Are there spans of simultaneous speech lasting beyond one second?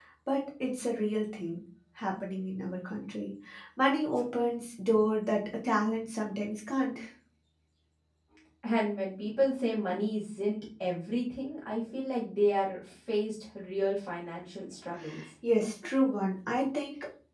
No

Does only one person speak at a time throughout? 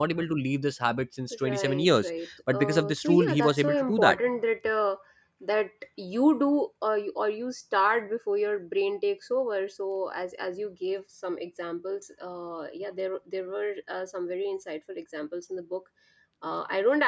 No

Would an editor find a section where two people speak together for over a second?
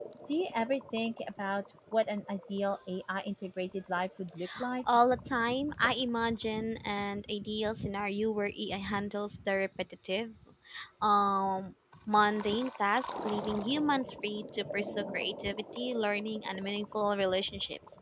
No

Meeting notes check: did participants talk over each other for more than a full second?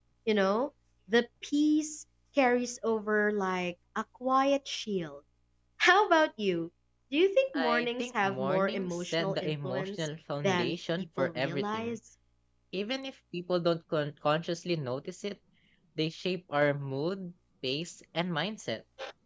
Yes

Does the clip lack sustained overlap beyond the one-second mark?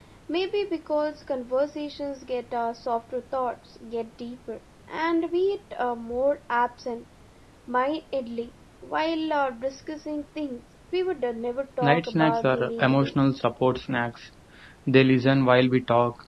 No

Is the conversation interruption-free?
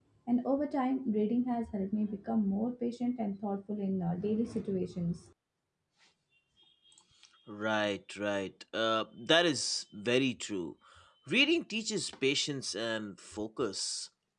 Yes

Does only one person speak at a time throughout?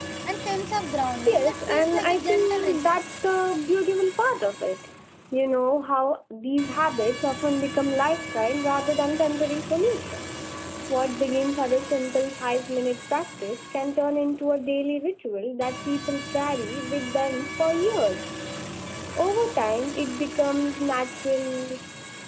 No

